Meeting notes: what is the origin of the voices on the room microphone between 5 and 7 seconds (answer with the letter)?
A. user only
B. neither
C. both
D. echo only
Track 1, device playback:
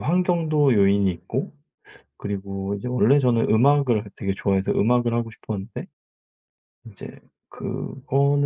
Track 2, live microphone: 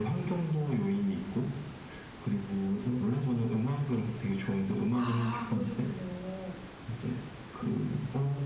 C